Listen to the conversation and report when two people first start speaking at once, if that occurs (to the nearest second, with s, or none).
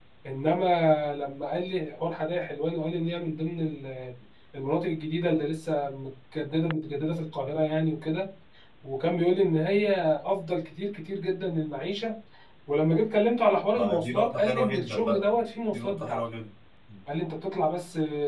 14 s